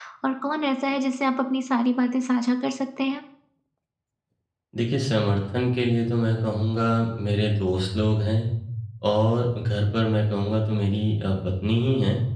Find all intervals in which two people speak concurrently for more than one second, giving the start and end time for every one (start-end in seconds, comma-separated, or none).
none